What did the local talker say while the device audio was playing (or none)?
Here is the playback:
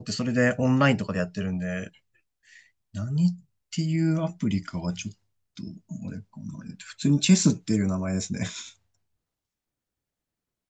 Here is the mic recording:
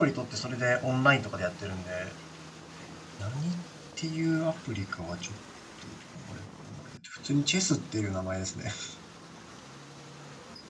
none